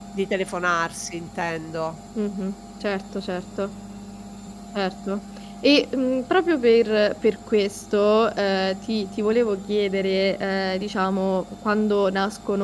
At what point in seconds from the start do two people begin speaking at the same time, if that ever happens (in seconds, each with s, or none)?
none